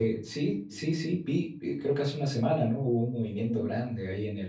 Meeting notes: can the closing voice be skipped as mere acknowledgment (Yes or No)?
Yes